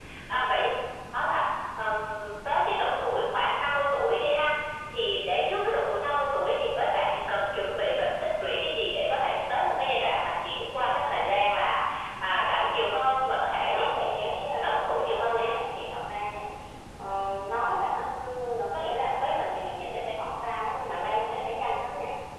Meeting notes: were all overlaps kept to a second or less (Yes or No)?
No